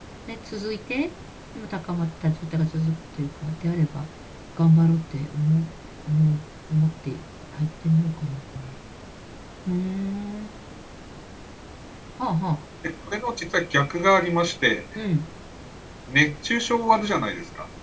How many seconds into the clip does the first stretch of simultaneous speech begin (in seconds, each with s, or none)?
none